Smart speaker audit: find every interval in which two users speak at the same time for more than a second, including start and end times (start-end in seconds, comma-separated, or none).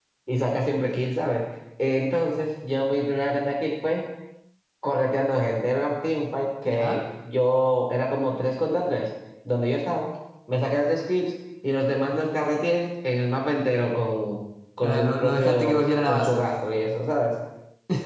14.8-16.4